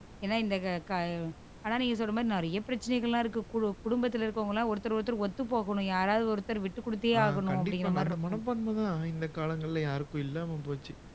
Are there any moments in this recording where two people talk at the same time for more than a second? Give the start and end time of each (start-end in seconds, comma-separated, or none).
7.2-8.4